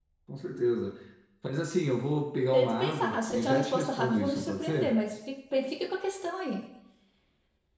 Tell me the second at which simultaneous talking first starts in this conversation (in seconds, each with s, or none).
2.5 s